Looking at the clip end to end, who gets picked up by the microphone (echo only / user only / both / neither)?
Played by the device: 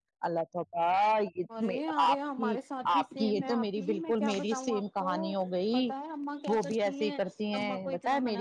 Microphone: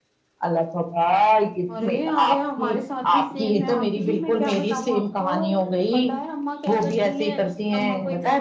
echo only